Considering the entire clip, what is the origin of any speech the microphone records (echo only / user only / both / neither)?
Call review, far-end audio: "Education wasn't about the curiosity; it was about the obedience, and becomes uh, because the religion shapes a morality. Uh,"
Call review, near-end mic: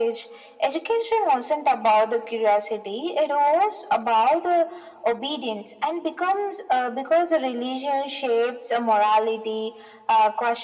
echo only